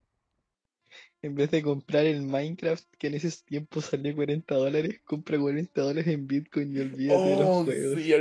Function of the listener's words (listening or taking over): taking over